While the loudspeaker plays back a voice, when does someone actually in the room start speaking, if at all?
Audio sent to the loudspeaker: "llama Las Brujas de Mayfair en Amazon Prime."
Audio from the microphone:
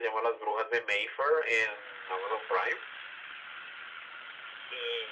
none

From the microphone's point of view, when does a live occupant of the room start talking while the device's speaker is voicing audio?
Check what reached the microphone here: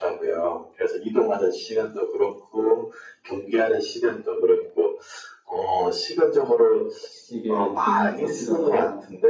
7.3 s

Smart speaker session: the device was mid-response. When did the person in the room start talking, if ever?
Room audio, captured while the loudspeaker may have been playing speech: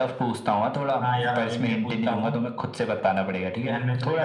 none

